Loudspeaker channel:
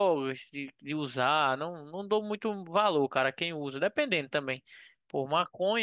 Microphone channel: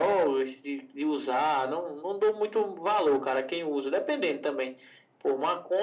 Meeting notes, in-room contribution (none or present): none